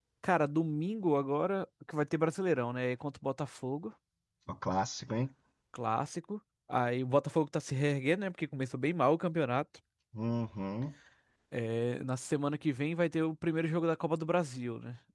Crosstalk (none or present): none